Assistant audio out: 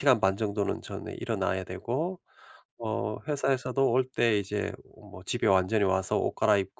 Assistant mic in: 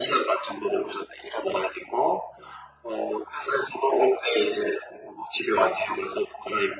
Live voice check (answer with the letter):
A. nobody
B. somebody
A